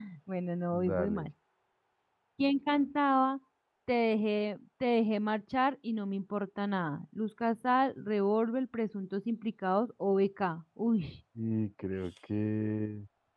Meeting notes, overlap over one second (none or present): none